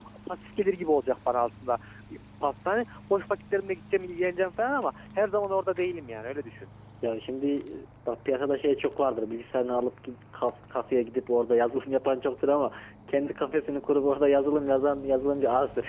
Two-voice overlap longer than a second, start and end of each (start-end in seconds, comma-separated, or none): none